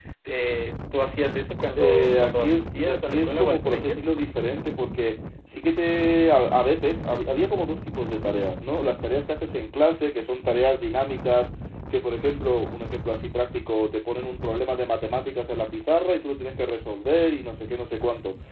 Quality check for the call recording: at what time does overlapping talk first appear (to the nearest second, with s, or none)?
2 s